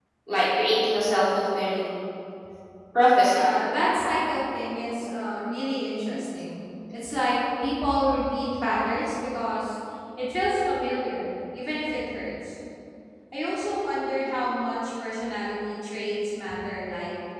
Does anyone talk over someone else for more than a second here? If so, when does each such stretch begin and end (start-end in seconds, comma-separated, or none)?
none